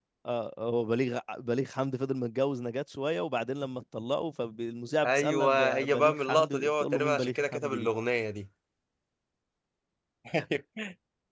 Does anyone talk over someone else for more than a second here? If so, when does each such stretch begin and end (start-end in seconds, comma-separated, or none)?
5.0-7.9